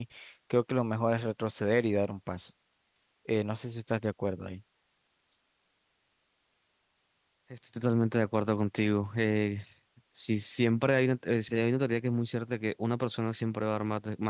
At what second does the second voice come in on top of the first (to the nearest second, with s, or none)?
none